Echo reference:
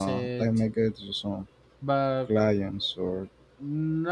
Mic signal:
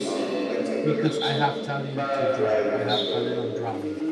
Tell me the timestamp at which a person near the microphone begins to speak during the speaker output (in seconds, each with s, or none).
0.8 s